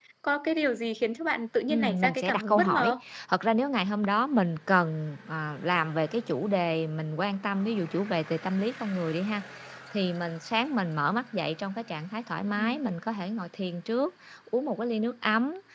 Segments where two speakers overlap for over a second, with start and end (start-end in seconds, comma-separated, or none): 1.7-2.9